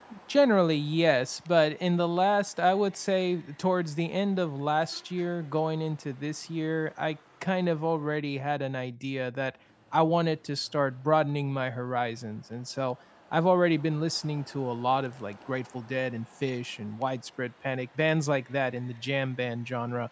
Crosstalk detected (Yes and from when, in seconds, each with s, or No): No